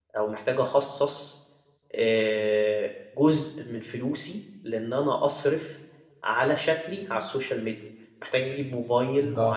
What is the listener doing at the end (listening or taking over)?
listening